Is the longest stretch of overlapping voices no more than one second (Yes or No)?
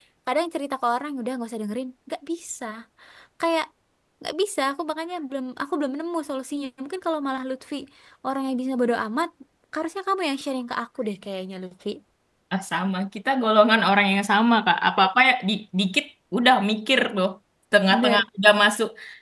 Yes